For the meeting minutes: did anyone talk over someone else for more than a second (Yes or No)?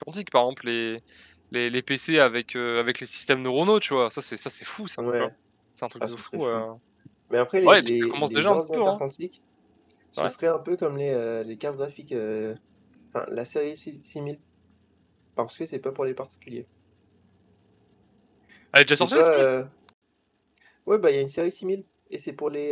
Yes